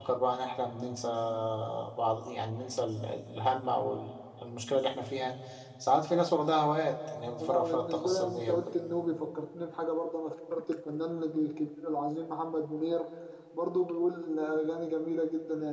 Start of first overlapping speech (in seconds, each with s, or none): 7.4 s